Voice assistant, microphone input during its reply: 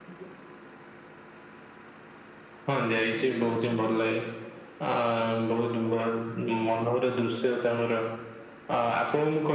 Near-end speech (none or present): present